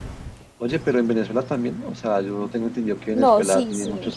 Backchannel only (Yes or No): No